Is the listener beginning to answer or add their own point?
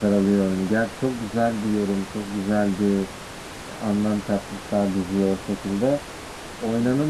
No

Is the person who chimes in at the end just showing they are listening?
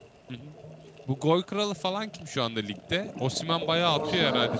No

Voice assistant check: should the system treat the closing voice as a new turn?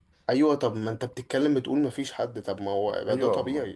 No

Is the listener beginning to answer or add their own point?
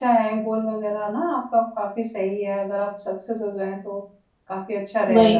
Yes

